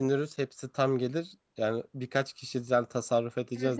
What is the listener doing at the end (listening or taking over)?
listening